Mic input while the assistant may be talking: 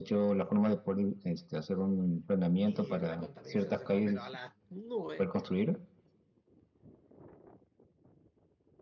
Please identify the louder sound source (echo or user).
echo